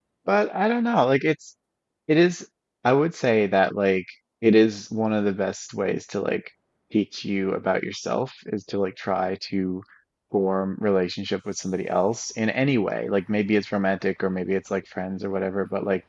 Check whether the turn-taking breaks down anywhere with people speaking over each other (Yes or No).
No